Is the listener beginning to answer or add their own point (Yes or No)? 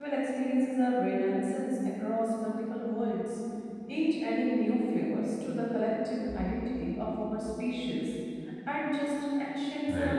No